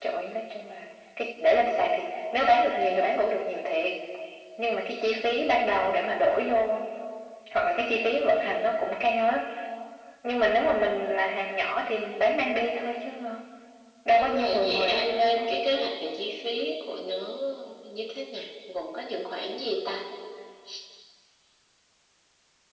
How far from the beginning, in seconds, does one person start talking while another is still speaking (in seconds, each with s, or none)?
14.2 s